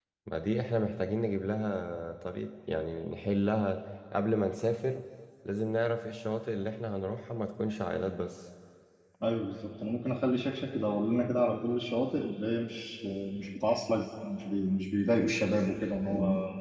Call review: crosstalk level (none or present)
none